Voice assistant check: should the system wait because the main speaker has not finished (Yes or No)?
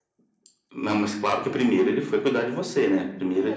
No